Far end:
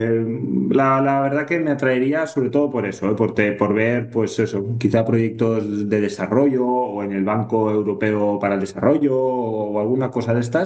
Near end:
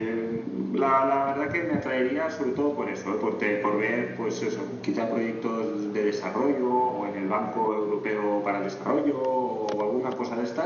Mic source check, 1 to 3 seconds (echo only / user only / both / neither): echo only